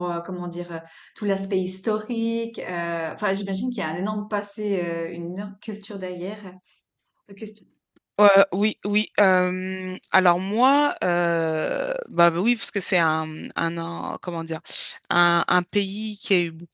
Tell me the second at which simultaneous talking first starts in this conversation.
none

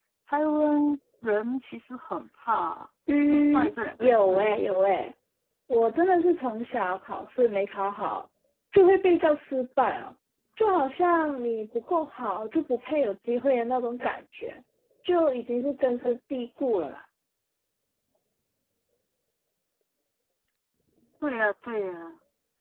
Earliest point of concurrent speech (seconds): 3.1 s

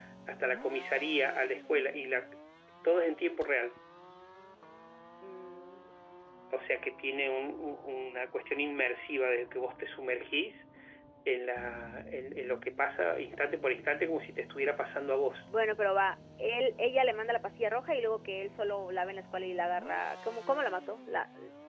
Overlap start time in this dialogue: none

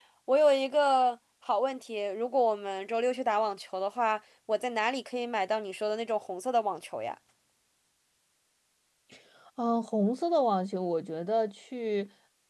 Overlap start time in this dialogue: none

